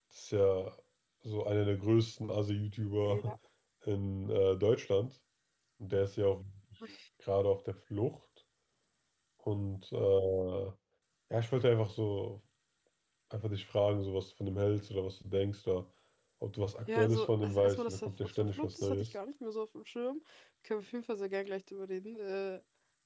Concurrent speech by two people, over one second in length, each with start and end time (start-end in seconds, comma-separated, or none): 17.0-19.1